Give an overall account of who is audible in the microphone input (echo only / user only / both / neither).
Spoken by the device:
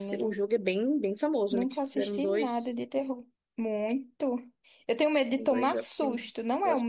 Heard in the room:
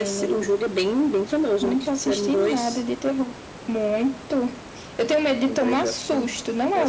echo only